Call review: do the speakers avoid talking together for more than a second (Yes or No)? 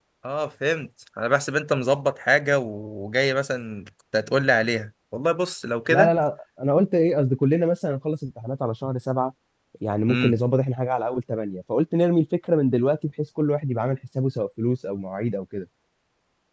Yes